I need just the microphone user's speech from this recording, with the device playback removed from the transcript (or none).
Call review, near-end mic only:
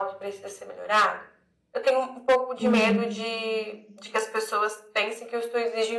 entendi.